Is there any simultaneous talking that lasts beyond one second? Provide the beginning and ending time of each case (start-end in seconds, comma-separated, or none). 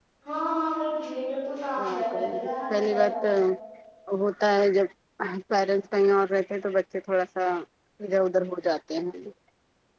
1.8-3.1